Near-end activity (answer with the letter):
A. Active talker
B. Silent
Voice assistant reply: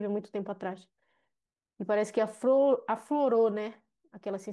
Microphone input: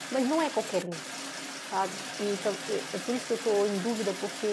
A